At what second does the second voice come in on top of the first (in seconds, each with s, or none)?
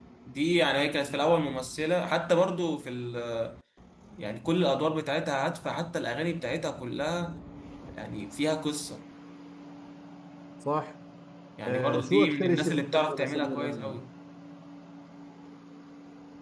11.7 s